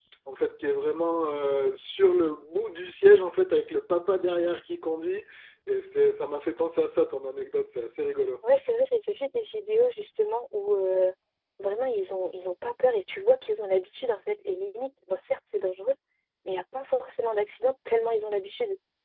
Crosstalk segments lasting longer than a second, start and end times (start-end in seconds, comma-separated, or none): none